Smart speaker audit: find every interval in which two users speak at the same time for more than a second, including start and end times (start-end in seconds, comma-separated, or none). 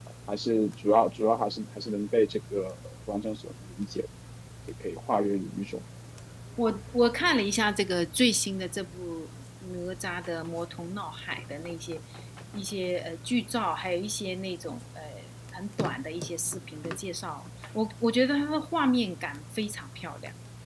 none